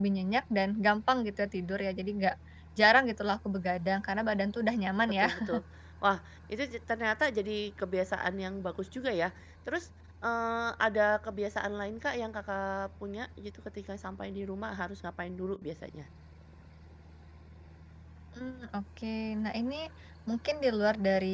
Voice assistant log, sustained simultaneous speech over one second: none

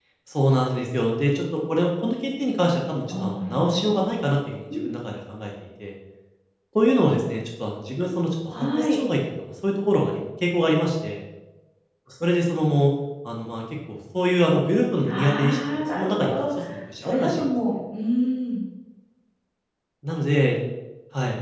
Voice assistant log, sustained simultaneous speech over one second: present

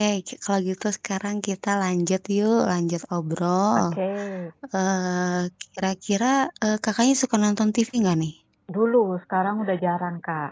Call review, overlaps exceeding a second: none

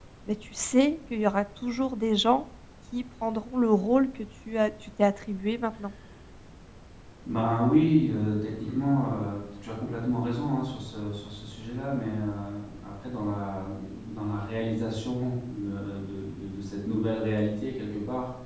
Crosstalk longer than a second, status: none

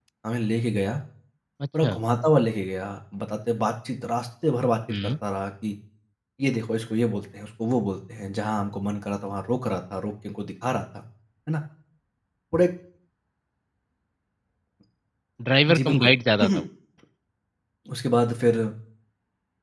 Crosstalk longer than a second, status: none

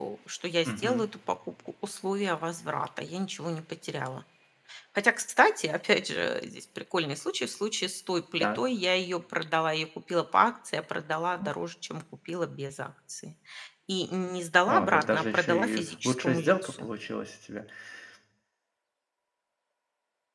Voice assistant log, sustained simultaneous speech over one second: present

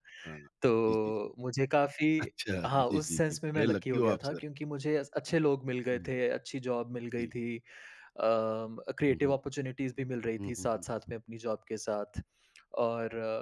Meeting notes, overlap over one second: present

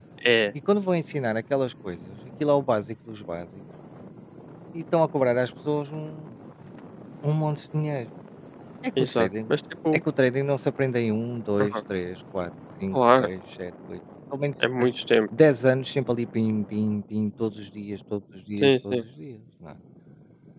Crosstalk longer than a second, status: none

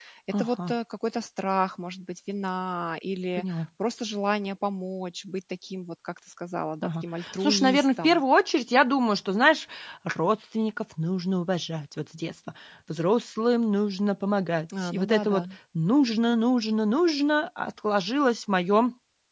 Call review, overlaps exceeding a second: present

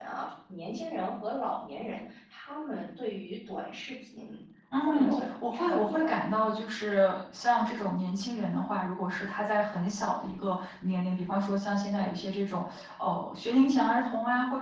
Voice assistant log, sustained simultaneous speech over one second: present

